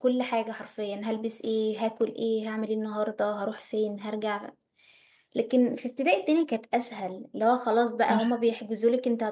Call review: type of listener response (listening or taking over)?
listening